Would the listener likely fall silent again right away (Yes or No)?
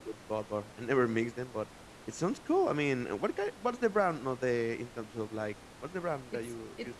No